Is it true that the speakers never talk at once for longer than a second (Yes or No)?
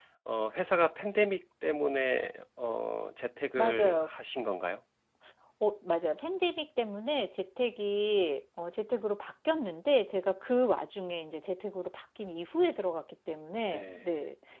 Yes